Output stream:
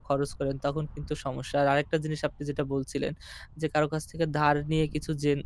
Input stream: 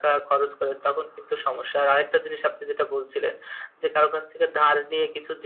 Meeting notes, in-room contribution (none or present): none